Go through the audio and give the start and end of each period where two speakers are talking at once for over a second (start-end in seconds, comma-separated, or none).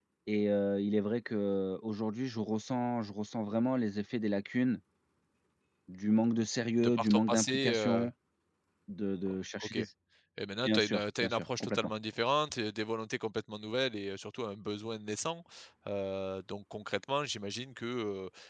6.8-8.1, 10.6-11.9